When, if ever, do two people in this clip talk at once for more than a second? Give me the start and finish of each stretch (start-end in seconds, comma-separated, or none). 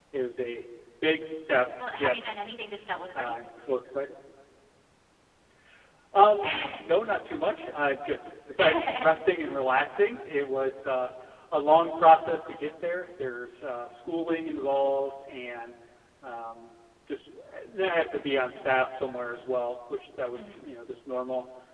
none